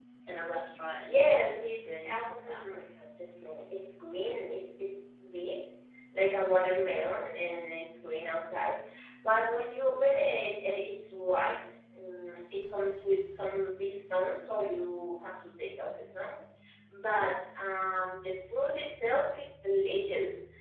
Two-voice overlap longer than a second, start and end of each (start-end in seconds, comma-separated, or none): 0.9-2.8